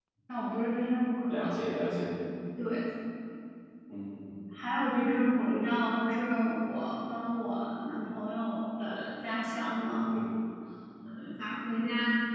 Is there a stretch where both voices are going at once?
No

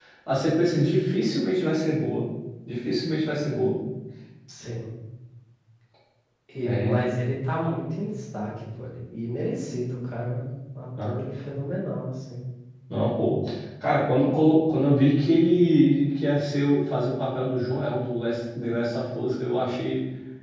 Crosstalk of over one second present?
No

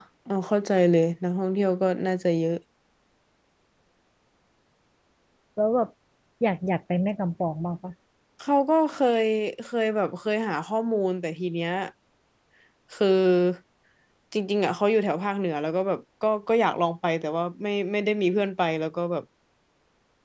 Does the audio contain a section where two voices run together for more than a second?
No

